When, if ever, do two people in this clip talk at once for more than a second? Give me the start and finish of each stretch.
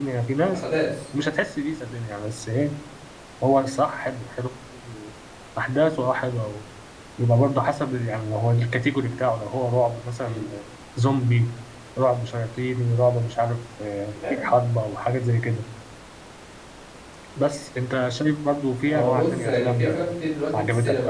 18.9-20.1

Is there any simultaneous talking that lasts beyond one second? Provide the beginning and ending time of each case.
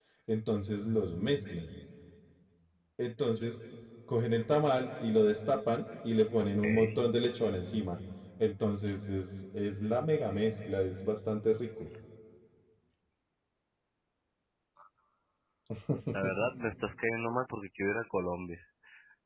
none

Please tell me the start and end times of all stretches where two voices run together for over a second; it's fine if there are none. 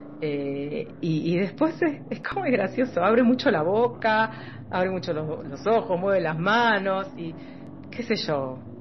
none

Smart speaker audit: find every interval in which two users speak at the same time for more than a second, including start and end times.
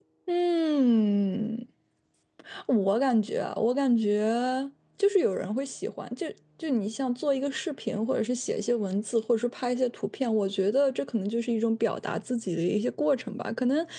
none

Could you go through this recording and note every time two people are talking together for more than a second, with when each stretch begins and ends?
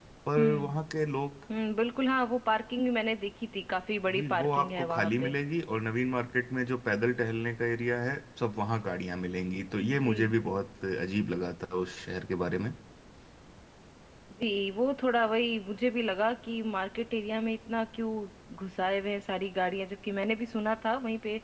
4.1-5.3

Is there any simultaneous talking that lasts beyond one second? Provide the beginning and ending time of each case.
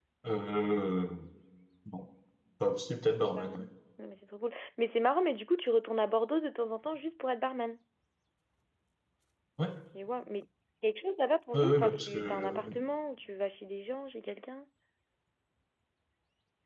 11.5-12.8

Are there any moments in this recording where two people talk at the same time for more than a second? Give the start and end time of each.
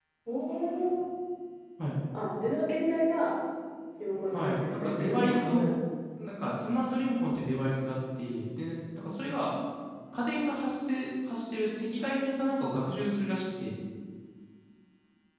4.3-5.6

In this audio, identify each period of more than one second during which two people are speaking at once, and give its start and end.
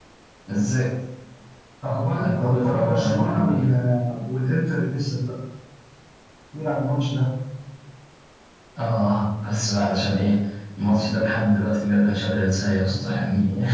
2.2-3.6

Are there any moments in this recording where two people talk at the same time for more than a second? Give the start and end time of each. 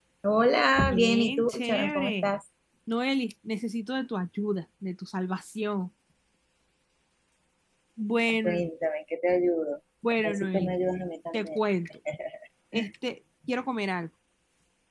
0.8-2.2

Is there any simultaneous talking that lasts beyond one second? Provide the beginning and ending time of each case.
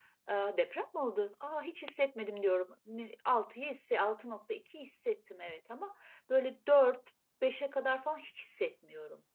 none

